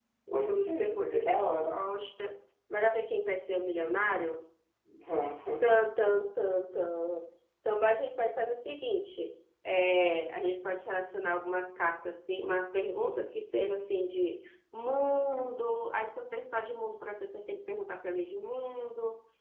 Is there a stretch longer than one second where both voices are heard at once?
Yes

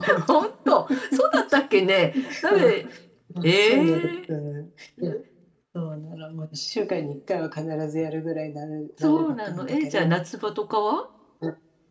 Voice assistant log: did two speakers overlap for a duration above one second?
Yes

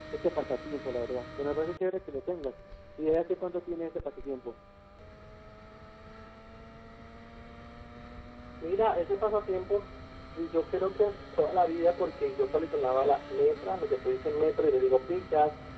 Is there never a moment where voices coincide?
Yes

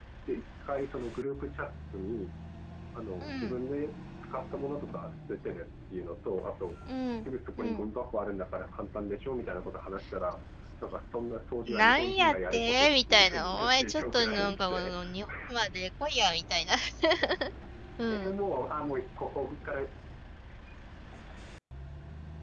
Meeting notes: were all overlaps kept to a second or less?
No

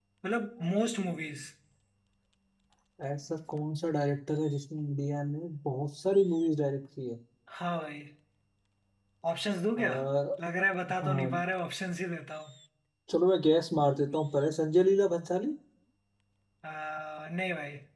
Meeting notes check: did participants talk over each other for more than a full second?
No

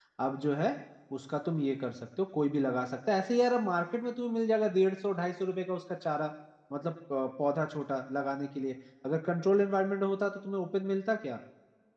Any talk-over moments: No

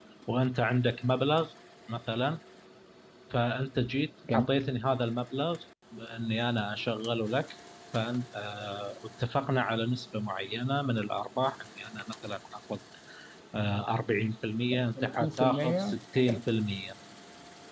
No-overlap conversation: No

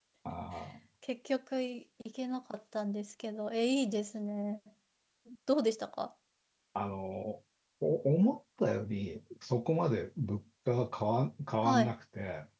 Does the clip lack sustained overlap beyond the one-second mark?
Yes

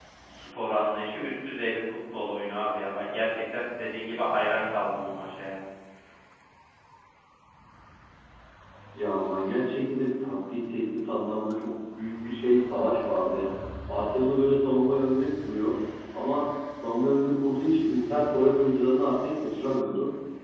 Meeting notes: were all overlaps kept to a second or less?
Yes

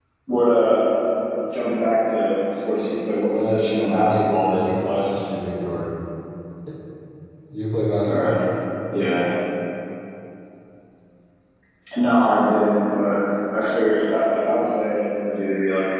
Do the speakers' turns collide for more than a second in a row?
Yes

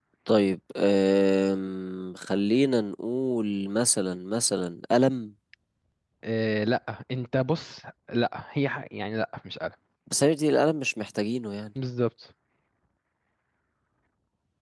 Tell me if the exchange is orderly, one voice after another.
Yes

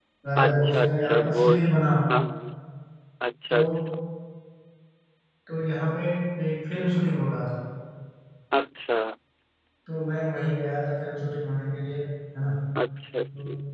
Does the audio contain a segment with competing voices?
Yes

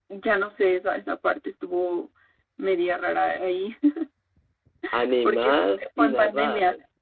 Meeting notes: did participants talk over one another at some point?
Yes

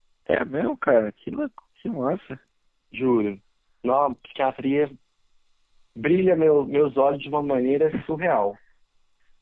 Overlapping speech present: No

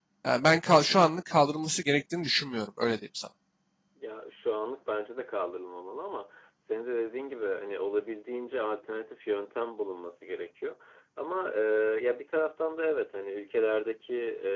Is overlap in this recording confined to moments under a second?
Yes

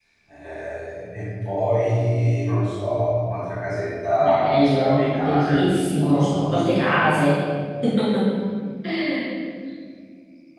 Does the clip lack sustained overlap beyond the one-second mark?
No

